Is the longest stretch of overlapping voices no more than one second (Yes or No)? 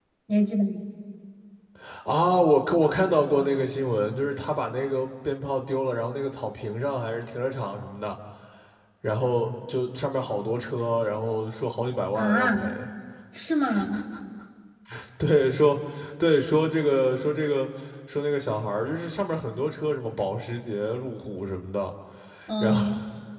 Yes